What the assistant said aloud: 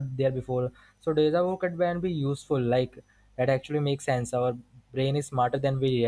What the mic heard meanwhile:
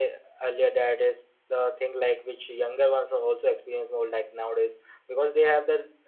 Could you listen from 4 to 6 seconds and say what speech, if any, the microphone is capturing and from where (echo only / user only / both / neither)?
user only